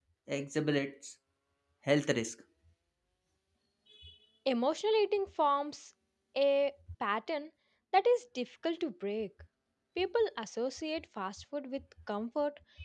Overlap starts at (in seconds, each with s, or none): none